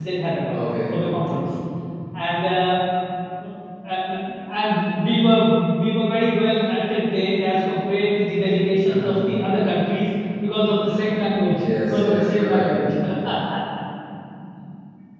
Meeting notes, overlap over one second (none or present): present